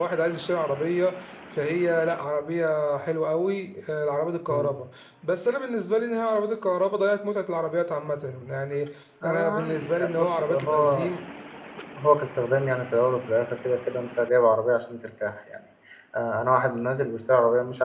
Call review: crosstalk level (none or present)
present